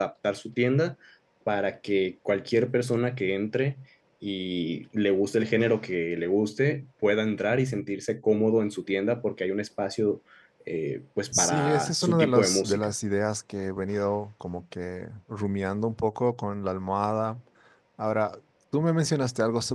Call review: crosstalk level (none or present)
present